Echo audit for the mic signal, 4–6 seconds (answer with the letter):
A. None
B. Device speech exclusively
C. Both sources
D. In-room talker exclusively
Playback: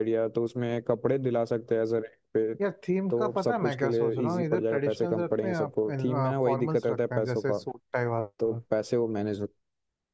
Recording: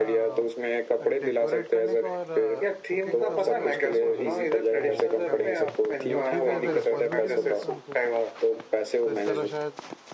C